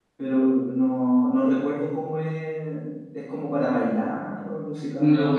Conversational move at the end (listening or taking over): taking over